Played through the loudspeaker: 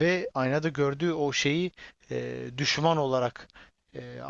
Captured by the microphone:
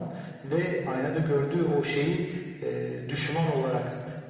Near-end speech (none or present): none